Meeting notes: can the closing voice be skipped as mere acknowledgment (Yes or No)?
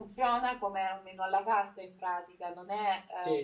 No